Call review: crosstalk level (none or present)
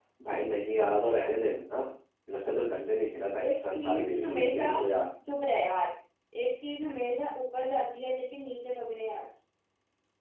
present